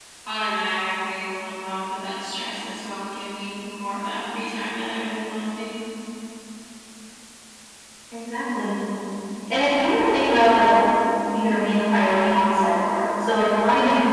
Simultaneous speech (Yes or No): No